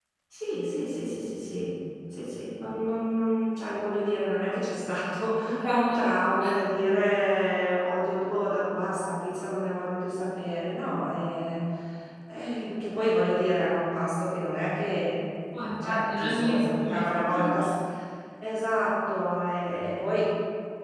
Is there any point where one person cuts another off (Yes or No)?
Yes